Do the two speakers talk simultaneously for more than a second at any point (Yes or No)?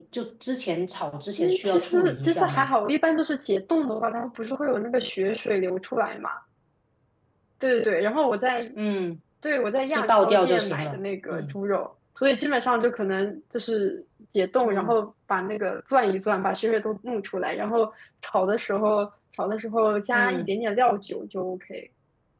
Yes